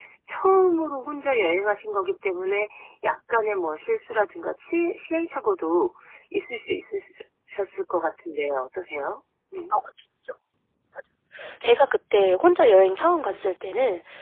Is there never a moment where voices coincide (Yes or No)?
Yes